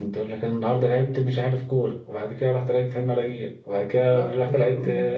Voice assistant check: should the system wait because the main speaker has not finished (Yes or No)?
No